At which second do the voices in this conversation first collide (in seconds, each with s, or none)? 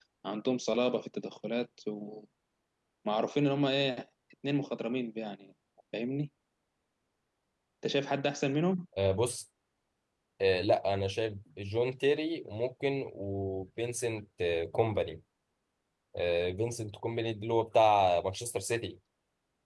none